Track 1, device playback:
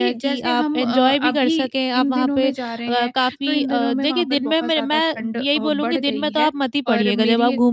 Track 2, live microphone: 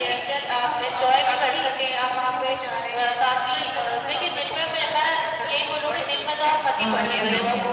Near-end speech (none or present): present